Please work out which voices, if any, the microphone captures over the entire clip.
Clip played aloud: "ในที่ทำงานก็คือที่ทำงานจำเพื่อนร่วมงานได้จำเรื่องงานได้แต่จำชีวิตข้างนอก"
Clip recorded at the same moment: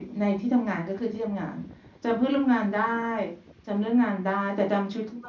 echo only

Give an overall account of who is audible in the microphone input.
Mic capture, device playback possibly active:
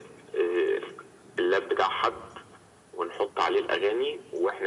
echo only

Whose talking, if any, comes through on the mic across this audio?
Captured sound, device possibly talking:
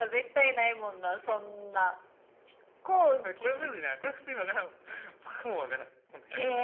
echo only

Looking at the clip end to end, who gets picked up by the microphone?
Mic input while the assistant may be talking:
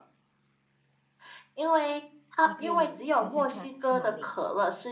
both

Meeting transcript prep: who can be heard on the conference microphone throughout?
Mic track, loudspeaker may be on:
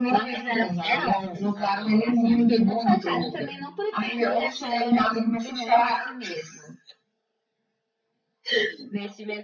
echo only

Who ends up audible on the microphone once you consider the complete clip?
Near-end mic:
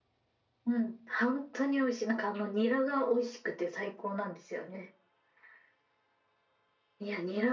echo only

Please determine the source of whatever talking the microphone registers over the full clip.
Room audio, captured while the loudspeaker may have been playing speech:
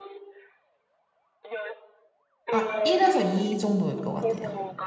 both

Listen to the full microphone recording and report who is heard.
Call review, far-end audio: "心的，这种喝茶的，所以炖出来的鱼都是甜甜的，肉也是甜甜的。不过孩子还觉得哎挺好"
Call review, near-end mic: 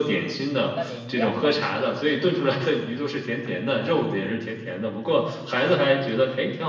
both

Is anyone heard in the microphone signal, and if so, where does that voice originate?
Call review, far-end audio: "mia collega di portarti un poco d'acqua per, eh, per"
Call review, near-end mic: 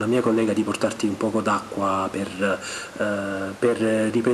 echo only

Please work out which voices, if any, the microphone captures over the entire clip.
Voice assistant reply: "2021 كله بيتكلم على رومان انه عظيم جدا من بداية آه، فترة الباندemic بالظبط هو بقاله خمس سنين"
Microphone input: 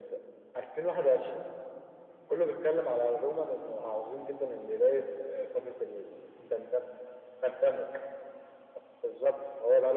echo only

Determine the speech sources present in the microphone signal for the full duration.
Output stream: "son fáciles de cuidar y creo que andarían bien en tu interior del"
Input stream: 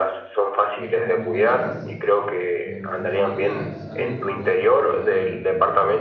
both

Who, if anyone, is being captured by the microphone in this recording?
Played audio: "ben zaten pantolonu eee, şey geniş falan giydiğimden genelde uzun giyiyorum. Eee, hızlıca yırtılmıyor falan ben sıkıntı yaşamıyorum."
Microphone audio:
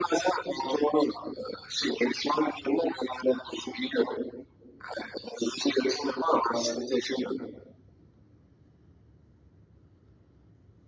echo only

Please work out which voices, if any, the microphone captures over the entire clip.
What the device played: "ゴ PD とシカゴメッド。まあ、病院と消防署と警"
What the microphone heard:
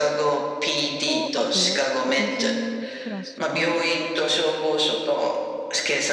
both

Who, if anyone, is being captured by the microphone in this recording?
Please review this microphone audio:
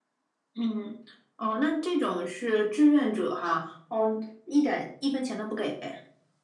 echo only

